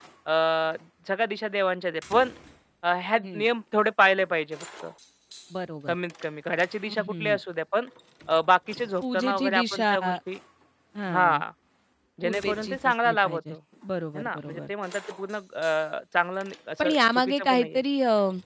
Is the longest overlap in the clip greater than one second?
Yes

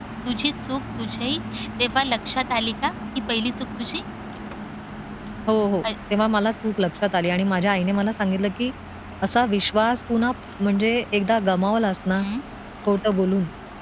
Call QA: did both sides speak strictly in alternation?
Yes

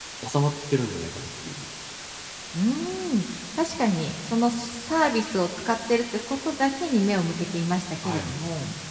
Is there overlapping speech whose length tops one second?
No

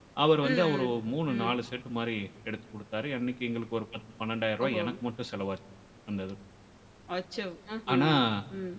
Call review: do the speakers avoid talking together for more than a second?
Yes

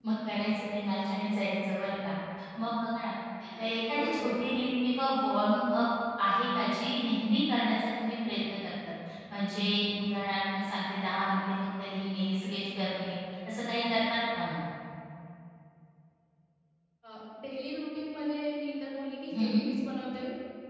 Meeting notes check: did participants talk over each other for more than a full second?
No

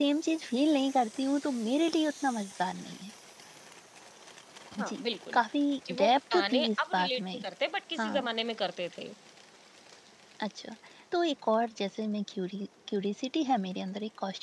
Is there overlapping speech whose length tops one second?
Yes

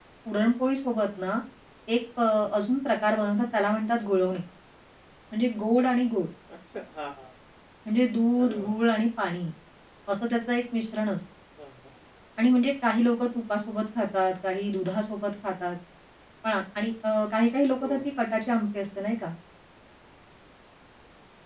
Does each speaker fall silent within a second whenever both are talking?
Yes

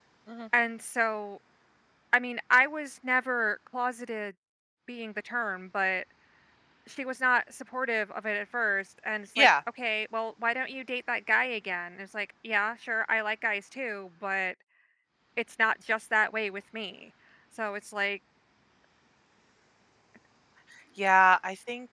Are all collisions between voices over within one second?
Yes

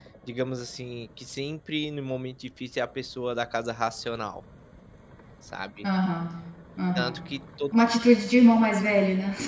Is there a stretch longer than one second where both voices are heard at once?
No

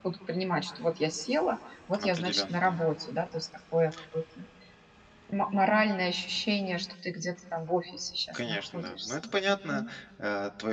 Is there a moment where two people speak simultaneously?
Yes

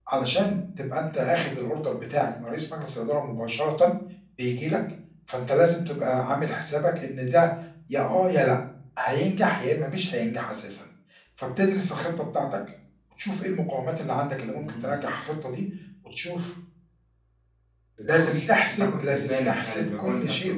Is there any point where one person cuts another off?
Yes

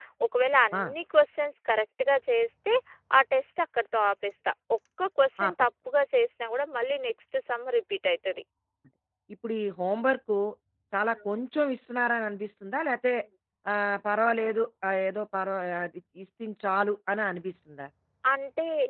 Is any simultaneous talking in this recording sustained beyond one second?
No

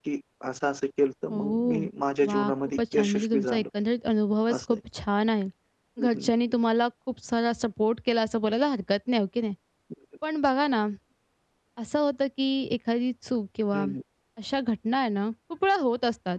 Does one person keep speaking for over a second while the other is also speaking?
Yes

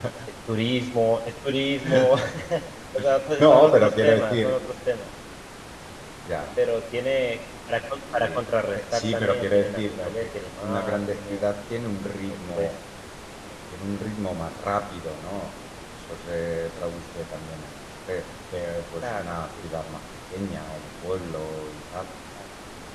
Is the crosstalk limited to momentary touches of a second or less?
No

